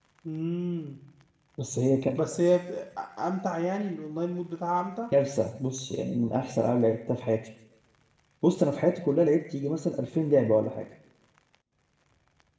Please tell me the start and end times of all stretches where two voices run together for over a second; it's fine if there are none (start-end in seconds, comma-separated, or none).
none